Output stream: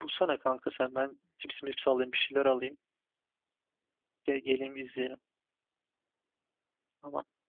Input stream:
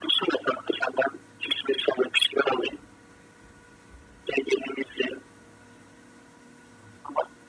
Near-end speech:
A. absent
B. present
A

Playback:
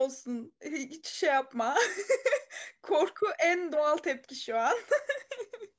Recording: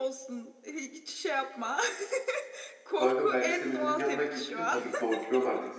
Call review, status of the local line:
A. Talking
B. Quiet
A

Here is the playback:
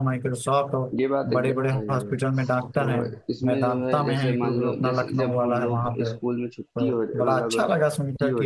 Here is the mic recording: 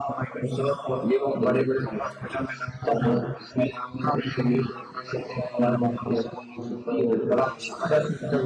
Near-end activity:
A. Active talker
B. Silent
B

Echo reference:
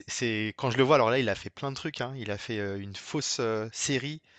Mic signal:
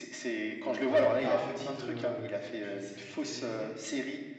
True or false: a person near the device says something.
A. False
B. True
B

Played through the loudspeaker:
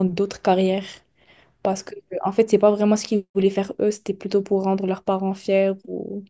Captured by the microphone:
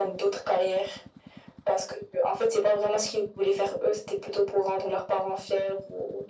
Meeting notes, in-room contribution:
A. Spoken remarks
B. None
B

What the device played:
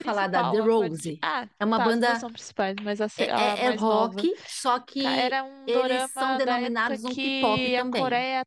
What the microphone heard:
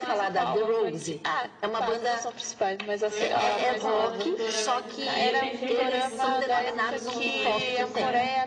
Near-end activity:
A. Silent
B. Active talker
B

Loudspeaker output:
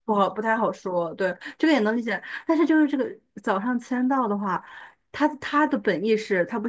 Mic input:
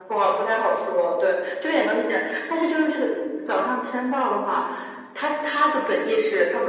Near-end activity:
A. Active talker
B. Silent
B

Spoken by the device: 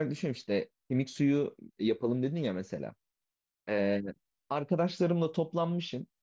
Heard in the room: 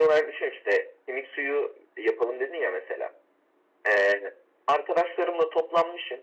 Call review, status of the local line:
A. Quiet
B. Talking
A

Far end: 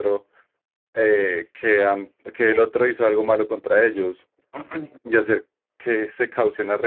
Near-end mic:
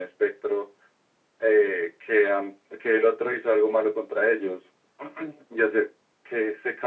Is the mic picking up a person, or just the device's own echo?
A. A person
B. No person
B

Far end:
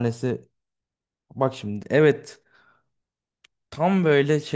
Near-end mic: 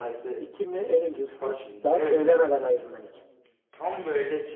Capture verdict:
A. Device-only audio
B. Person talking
B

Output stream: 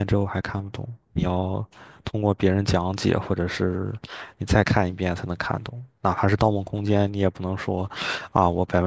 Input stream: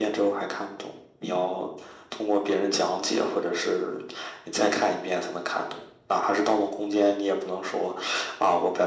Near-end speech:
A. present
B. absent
B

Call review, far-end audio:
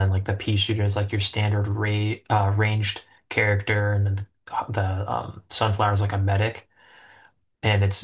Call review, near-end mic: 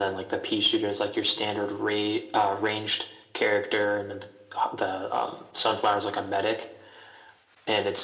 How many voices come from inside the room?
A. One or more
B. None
B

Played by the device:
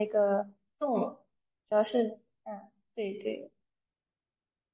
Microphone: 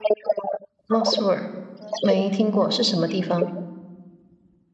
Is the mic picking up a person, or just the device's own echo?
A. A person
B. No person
A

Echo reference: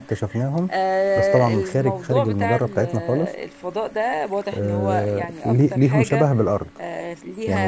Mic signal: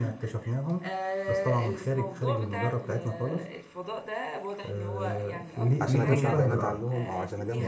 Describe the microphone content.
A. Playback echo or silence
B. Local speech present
B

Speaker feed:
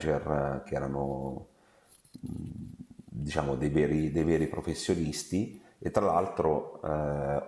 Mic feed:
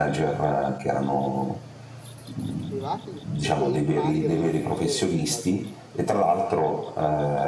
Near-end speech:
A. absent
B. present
B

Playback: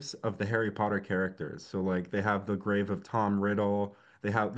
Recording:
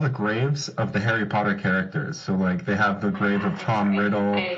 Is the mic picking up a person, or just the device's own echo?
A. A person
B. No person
A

